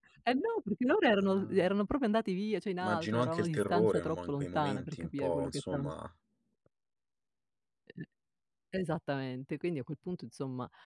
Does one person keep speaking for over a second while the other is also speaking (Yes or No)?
Yes